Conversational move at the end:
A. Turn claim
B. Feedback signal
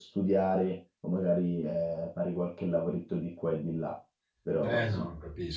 A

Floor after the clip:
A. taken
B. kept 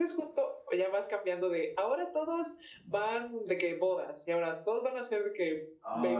A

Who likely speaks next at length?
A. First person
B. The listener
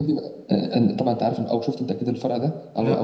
A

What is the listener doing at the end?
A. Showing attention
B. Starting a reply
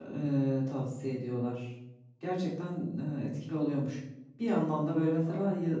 A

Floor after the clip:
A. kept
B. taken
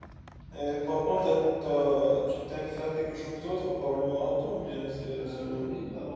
B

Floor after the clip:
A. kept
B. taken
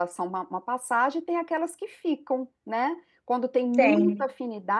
A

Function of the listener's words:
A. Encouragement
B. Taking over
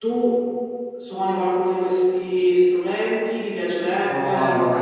B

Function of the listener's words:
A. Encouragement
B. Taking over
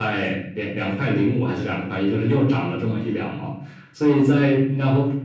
A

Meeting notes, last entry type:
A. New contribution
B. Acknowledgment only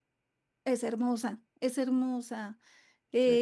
B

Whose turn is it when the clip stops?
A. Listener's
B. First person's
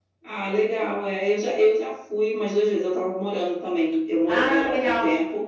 B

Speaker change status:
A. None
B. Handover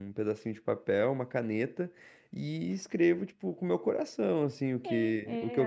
B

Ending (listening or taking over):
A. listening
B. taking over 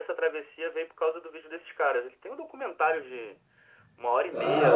B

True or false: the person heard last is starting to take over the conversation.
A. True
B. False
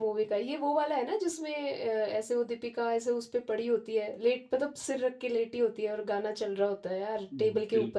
A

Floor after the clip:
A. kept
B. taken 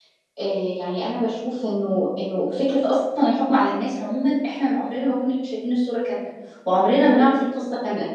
A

